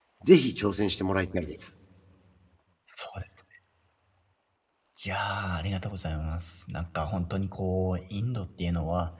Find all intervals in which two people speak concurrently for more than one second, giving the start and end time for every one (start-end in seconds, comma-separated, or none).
none